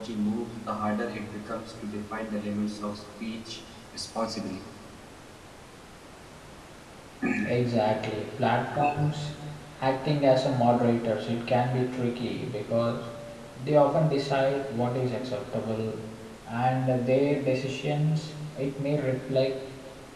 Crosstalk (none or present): none